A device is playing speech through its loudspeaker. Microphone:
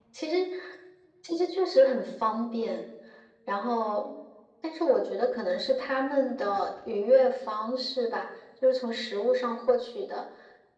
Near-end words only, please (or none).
none